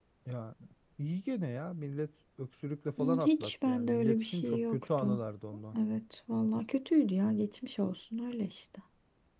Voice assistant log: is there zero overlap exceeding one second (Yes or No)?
No